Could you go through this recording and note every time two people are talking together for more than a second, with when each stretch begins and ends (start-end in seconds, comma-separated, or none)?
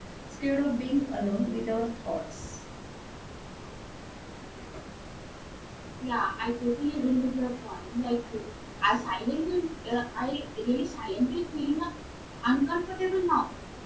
none